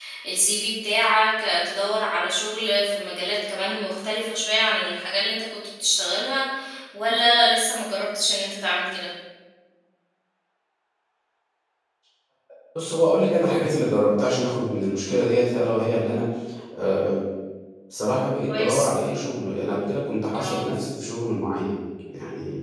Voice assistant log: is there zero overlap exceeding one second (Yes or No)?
Yes